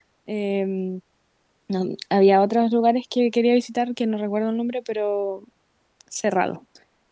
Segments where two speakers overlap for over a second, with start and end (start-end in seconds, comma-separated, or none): none